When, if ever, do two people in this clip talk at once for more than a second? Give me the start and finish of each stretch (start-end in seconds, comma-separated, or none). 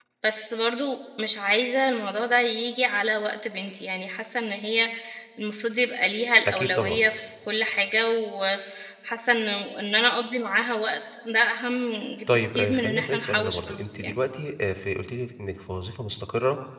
12.3-14.2